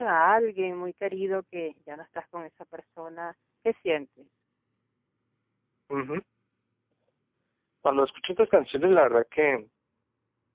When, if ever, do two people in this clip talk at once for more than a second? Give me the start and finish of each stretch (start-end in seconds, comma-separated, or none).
none